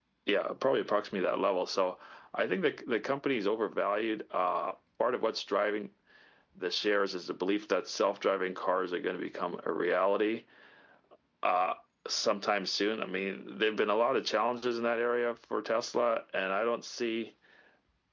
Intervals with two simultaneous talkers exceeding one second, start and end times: none

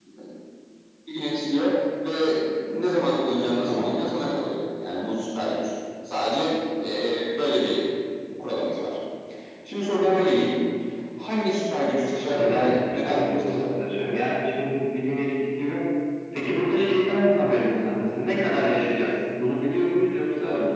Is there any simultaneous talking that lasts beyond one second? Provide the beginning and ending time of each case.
12.3-13.8

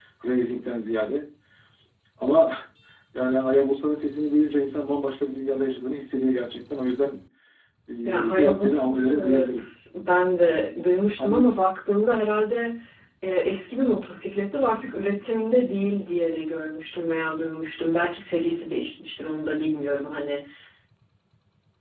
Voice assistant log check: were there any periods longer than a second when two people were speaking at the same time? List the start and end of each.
8.0-9.6

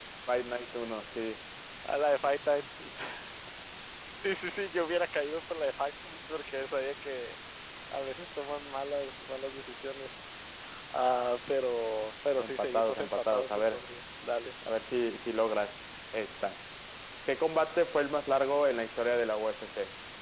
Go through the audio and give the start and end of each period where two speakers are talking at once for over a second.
12.3-13.8

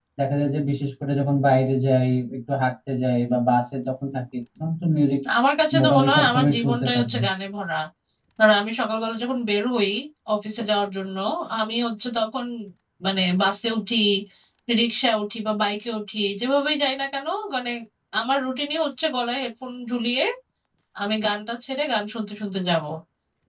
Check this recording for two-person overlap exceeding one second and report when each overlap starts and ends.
5.8-7.2

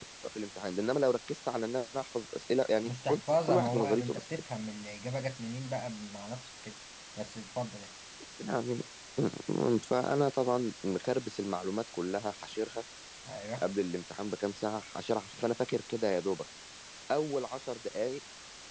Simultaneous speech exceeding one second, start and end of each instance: 2.8-4.2

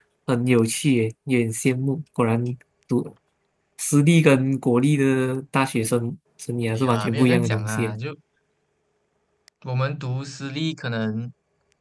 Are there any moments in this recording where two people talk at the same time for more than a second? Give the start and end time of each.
6.7-8.0

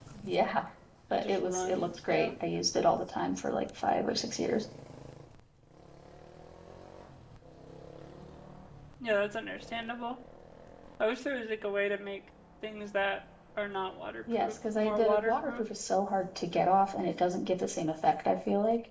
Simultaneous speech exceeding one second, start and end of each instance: 1.1-2.3, 14.4-15.6

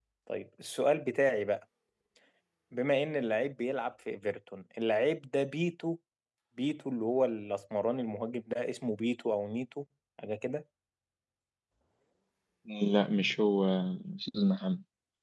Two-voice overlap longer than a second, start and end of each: none

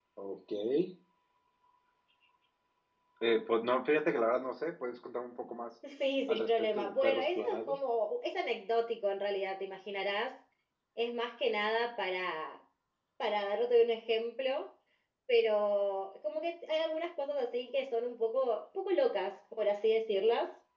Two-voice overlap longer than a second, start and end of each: 6.3-7.8

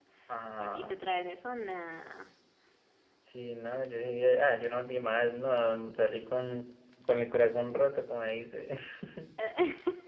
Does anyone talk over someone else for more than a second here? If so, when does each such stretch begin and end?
none

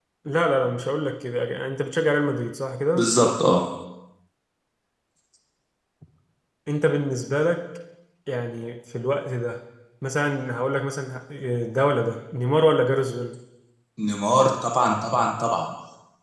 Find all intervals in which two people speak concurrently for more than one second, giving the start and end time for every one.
none

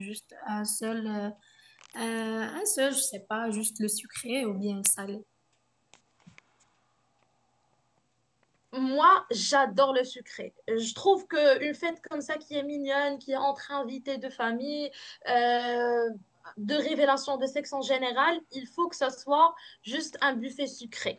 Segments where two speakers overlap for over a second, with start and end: none

